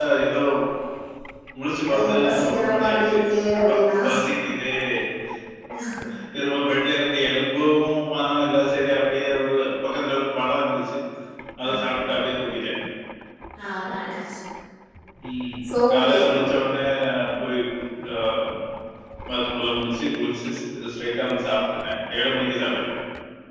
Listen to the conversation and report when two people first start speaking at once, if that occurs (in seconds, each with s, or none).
1.9 s